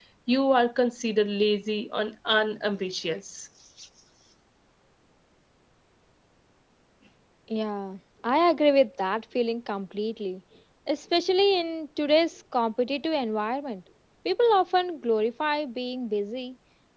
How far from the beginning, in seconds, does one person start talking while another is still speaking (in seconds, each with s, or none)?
none